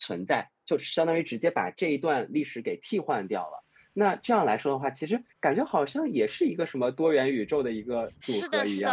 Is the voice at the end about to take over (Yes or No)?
Yes